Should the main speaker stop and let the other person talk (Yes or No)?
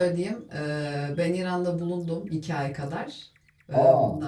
No